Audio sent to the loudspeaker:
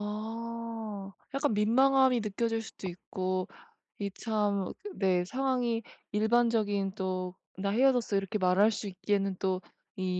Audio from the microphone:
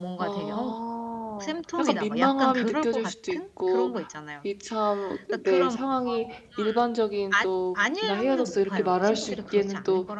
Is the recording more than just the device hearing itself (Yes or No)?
Yes